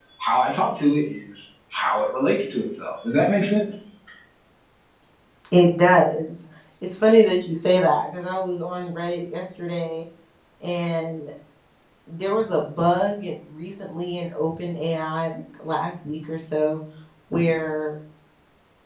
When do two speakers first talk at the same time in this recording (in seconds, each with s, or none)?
none